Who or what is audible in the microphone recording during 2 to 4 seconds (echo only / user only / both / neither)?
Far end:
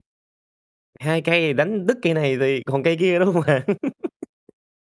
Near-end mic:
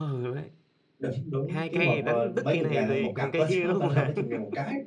both